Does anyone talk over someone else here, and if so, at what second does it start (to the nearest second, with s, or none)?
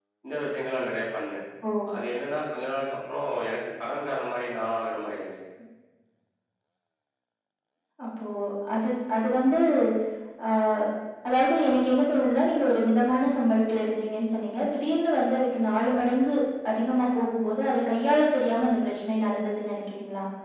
none